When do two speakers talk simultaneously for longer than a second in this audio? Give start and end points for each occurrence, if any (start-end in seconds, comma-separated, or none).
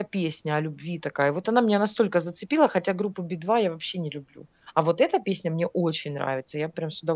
none